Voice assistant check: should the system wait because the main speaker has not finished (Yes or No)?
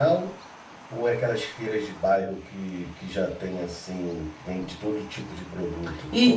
No